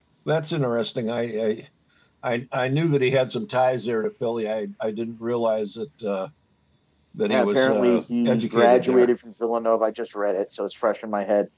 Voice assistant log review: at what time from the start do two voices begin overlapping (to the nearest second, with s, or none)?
7 s